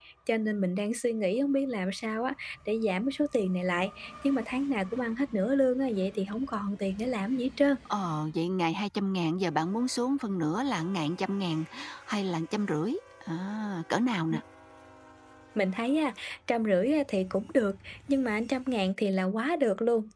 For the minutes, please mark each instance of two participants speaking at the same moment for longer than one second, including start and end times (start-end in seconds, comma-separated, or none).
none